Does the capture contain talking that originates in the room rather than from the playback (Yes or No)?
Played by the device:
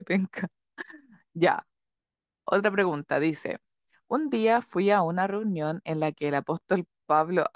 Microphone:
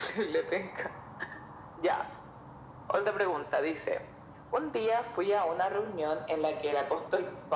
No